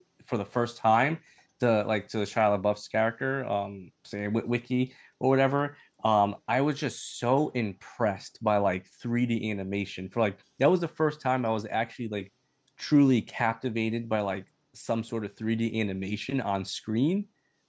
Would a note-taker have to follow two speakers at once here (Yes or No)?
No